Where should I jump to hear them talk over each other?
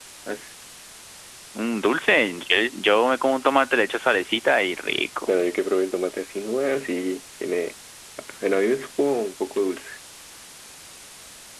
none

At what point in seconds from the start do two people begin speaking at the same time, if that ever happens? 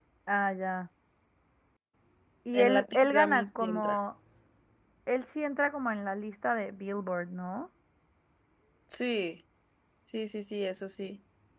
2.5 s

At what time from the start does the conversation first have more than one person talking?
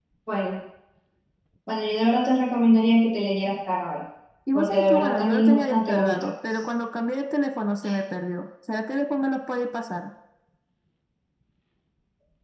4.5 s

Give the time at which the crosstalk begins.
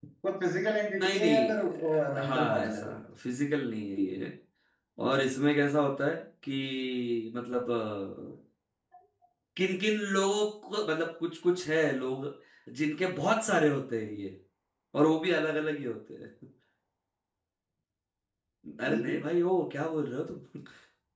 1.0 s

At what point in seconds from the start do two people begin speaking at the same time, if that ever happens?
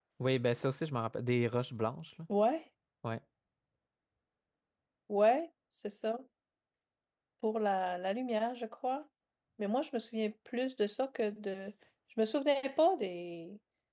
none

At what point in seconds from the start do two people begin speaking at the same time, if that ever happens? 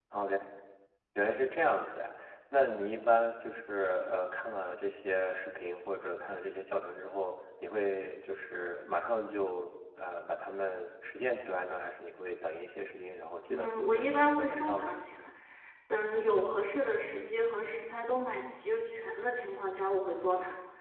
13.5 s

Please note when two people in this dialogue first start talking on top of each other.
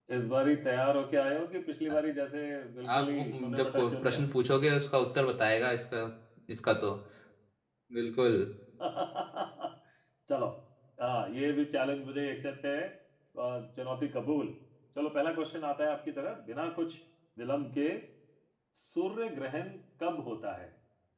3.0 s

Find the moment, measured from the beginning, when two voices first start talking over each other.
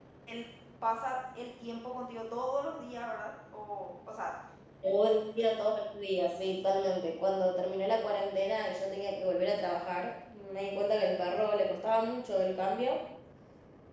none

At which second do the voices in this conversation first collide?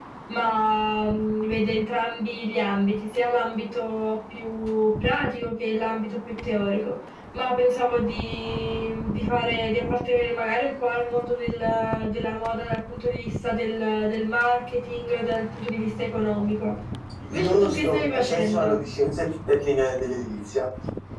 17.3 s

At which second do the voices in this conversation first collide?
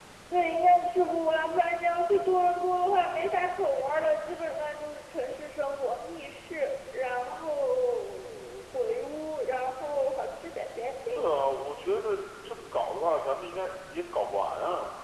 none

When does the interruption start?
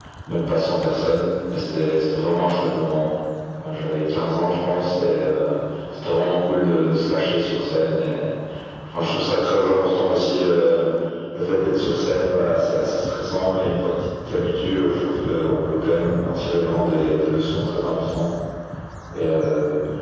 none

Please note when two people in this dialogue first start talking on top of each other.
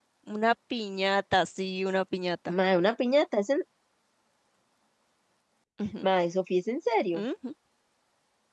none

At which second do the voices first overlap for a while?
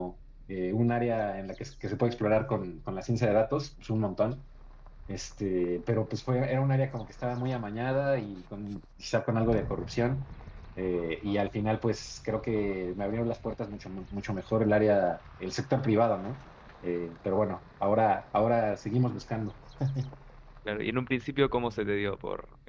none

